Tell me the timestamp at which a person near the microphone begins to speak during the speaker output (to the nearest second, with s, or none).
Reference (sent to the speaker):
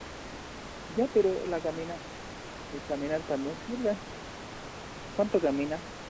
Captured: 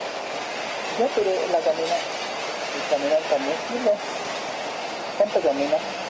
none